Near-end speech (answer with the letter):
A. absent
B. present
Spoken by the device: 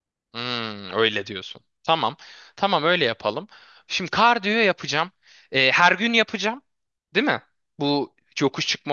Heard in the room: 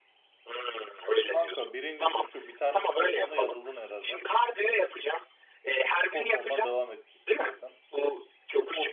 B